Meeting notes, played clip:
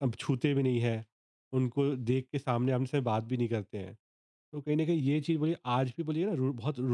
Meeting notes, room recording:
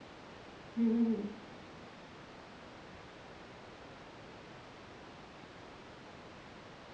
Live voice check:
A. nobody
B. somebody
B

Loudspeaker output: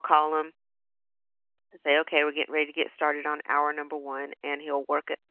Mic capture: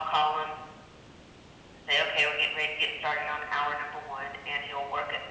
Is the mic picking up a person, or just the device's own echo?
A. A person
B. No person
B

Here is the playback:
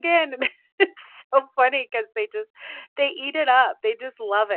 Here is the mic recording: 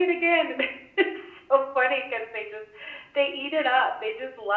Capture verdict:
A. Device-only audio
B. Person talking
A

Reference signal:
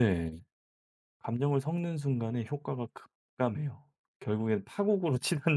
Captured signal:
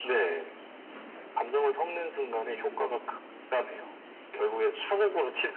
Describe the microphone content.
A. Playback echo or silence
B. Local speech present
A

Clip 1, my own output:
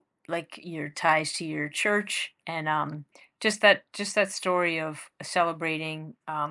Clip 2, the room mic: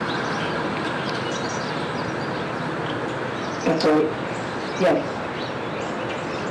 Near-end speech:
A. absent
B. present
B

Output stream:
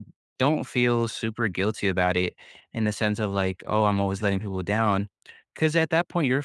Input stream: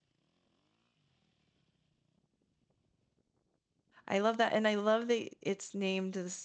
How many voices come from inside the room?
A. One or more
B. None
A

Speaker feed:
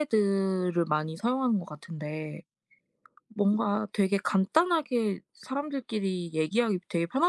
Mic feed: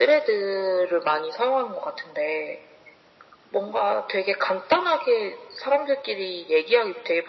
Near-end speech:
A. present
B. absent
B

